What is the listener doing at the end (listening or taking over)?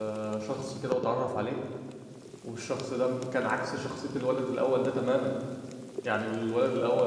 listening